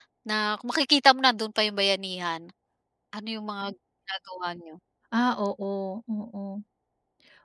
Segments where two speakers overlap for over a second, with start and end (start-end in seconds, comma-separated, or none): none